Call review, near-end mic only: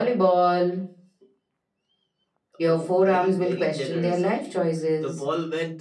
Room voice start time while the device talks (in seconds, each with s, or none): none